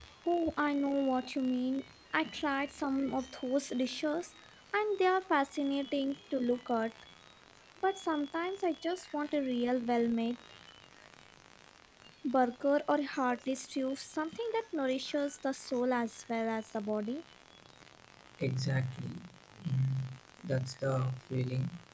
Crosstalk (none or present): none